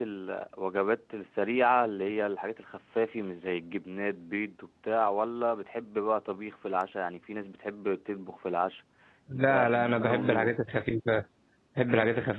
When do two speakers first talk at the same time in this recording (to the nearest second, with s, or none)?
9 s